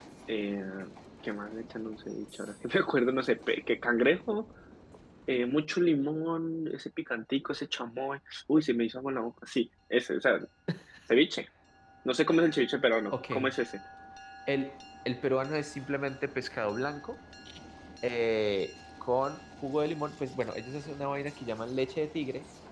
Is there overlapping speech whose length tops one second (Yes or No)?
No